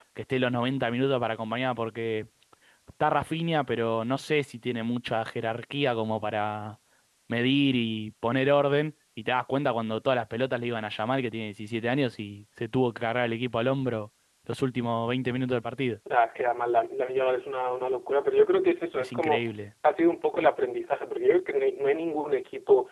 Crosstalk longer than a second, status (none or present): none